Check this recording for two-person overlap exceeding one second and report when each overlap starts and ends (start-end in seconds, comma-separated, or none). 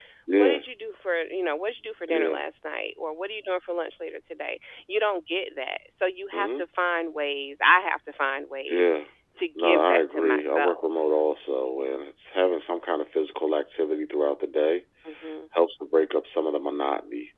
9.6-10.8